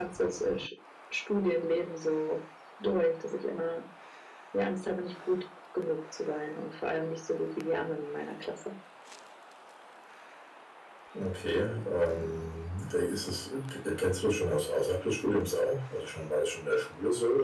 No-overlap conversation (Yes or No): Yes